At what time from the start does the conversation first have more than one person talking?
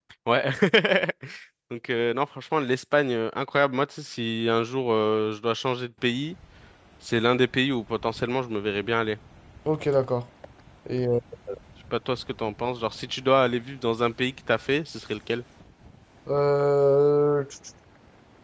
none

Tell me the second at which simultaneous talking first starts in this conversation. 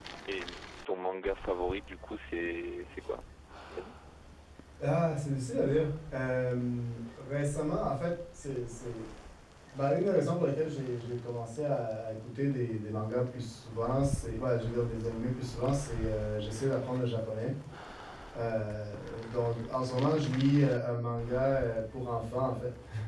none

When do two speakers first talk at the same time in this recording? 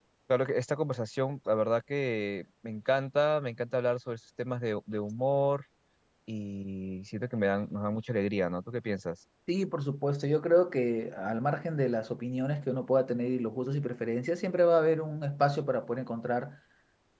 none

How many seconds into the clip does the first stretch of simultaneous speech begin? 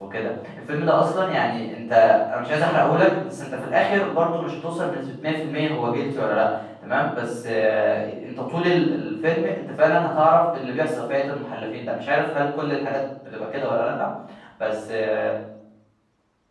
none

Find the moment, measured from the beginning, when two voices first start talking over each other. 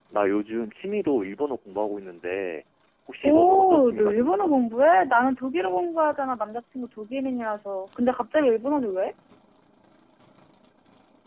3.2 s

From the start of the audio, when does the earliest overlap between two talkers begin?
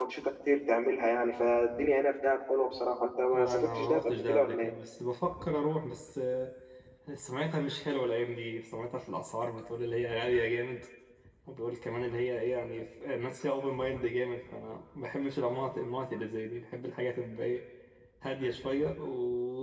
3.3 s

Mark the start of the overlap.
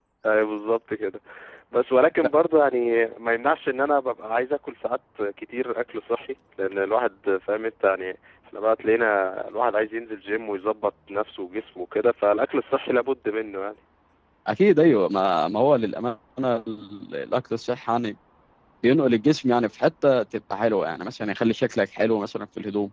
none

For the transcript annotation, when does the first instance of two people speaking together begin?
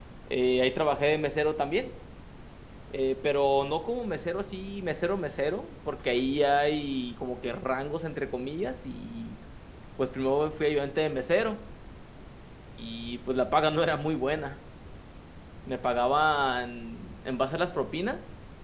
none

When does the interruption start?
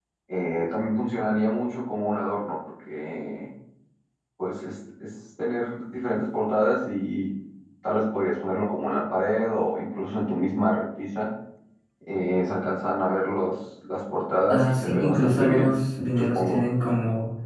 14.5 s

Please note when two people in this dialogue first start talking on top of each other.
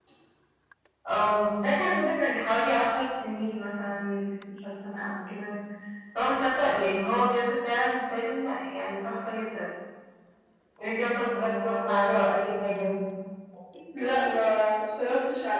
none

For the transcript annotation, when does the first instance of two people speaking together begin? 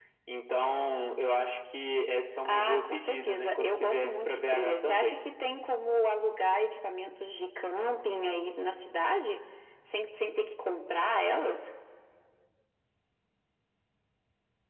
2.4 s

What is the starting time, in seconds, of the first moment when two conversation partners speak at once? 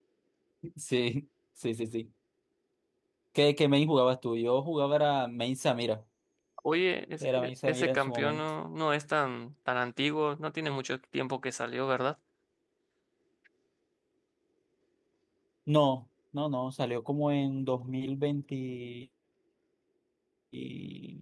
7.2 s

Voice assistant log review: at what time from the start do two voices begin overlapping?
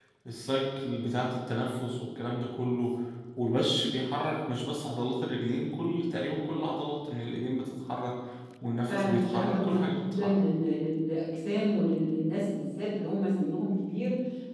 8.9 s

